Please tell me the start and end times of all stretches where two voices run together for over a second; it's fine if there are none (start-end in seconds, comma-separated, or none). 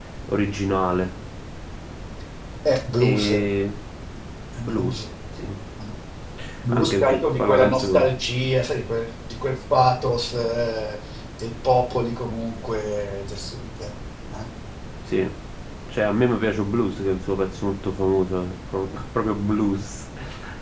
6.7-8.1